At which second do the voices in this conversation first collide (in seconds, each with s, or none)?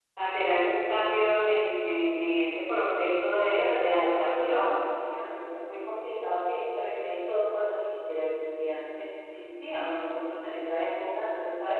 3.3 s